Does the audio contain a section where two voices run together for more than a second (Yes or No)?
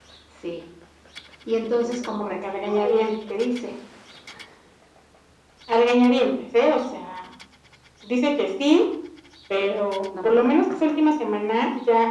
Yes